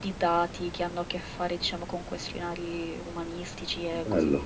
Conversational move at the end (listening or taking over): taking over